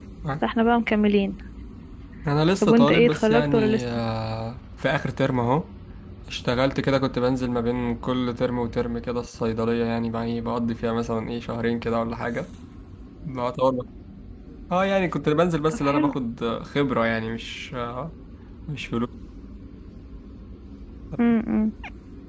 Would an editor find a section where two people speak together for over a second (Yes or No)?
Yes